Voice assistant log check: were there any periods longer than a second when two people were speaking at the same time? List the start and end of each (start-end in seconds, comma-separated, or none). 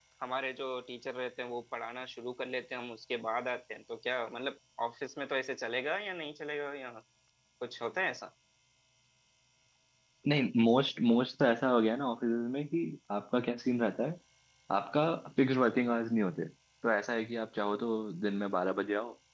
none